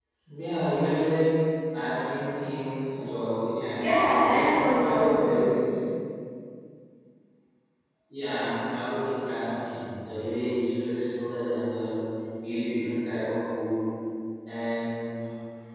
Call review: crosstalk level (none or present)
present